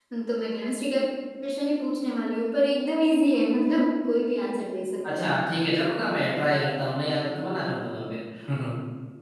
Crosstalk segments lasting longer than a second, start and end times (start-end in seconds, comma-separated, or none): none